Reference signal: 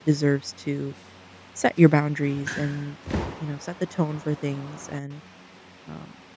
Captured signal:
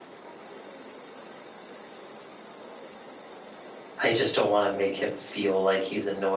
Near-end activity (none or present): present